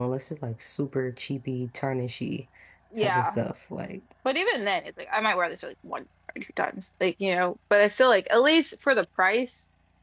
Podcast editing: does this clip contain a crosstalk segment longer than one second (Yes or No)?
No